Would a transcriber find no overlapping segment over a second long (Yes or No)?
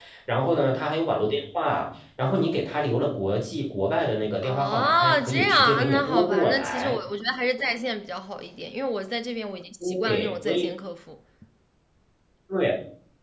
No